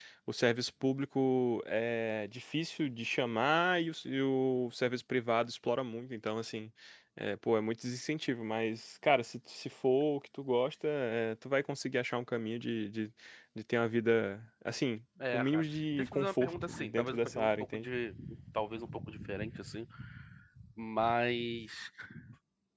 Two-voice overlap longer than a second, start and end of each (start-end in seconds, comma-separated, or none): 15.3-17.9